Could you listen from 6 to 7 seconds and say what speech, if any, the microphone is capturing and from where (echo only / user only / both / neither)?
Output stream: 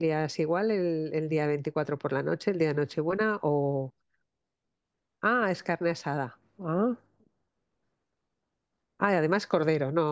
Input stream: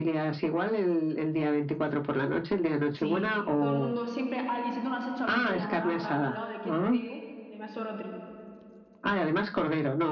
both